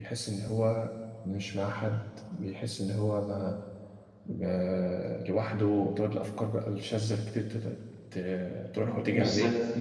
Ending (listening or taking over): taking over